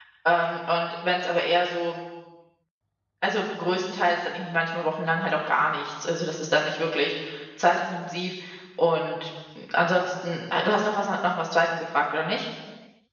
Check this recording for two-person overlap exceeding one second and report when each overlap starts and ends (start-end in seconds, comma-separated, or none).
none